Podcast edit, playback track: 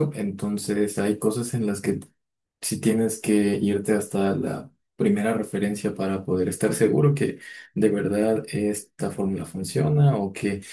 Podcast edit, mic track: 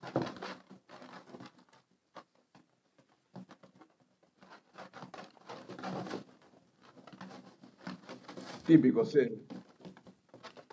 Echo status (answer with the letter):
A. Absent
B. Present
A